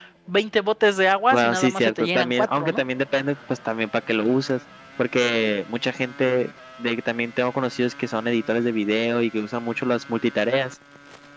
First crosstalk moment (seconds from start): 1 s

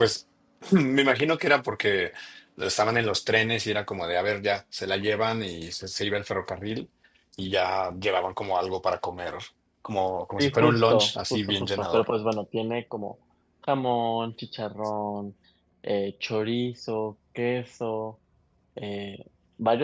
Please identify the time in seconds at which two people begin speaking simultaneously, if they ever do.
10 s

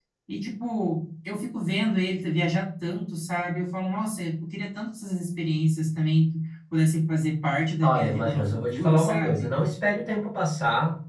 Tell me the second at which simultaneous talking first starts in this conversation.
8 s

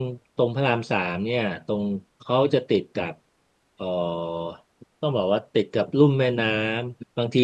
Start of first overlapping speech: none

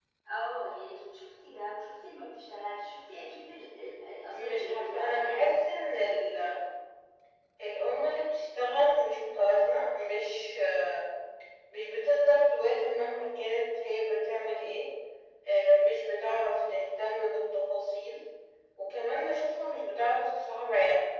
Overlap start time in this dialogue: 4 s

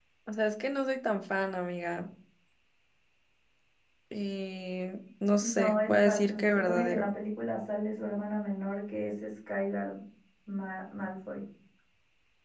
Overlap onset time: 5 s

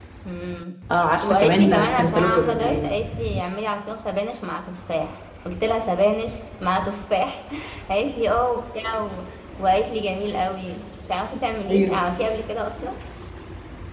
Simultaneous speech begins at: 1 s

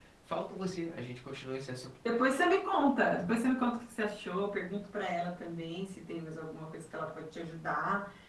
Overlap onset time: none

